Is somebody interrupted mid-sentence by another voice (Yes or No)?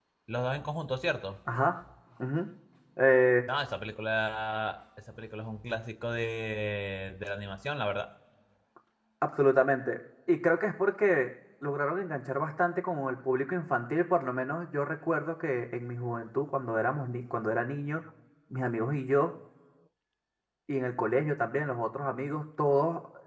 No